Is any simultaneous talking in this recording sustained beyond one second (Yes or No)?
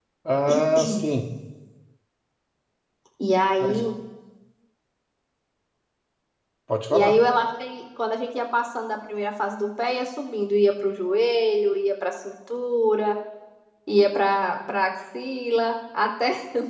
No